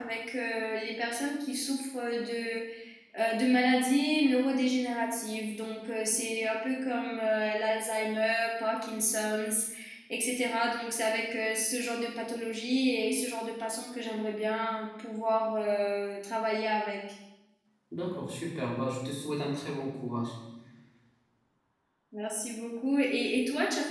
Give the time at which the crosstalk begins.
none

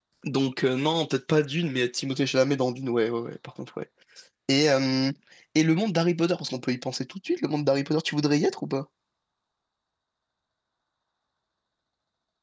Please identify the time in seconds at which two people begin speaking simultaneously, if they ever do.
none

